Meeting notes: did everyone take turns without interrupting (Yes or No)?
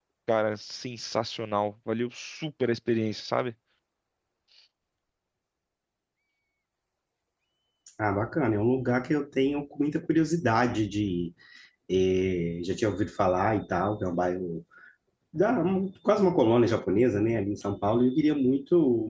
Yes